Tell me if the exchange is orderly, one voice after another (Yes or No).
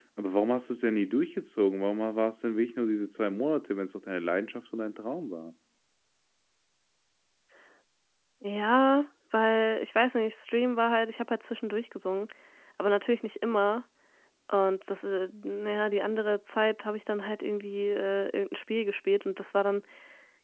Yes